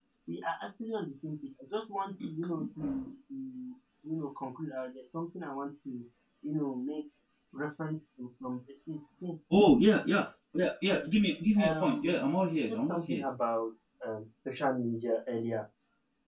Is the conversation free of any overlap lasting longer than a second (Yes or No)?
No